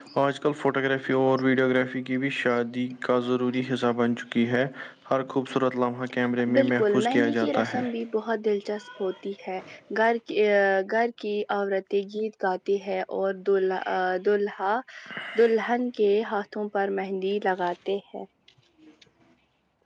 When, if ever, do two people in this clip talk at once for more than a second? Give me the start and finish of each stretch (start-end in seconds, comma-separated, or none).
6.5-7.8